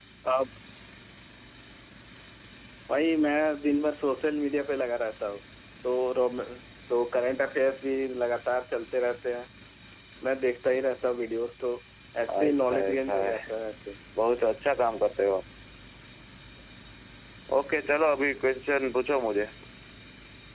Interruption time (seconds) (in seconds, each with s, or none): 12.3 s